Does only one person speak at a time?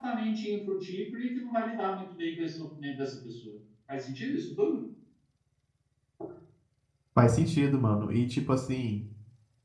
Yes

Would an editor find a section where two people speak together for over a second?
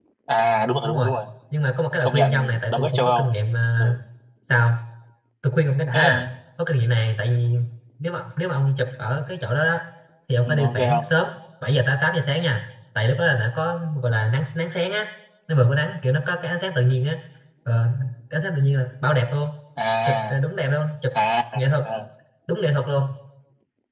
Yes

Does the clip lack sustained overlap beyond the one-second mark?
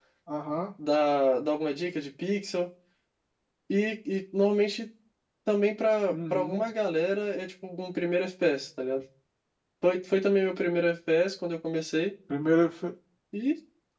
Yes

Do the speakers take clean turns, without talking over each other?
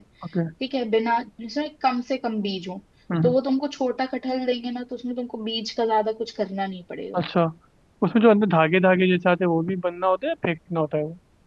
Yes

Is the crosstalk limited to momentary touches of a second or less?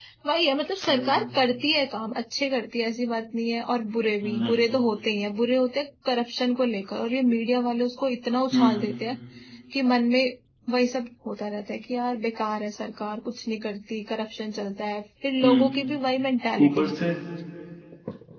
Yes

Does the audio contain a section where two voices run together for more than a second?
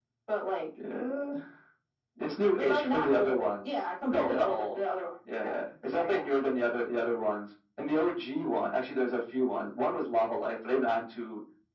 Yes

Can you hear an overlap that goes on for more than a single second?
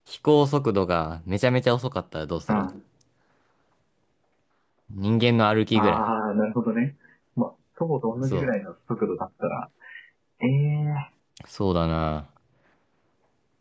No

